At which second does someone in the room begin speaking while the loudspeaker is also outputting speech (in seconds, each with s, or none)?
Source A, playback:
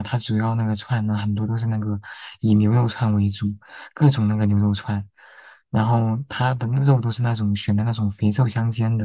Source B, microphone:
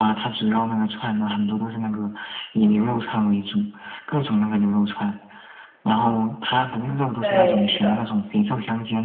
7.2 s